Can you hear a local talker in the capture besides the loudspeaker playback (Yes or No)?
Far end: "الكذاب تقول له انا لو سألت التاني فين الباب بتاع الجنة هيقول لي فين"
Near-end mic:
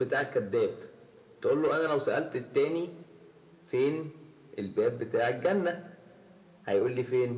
No